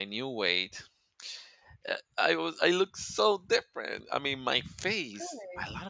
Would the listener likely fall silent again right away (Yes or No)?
Yes